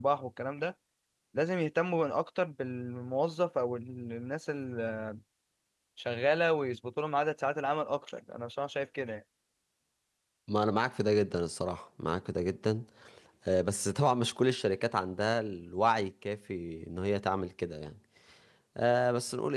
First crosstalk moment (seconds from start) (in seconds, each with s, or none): none